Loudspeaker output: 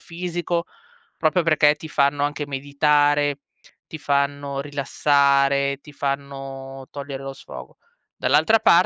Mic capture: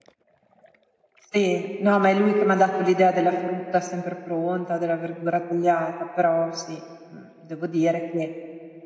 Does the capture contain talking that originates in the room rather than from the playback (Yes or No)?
Yes